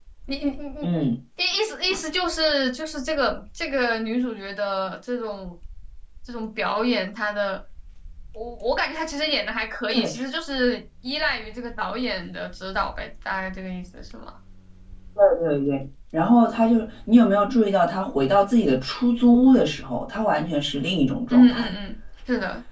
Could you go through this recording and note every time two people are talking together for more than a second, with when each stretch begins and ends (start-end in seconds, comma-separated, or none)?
none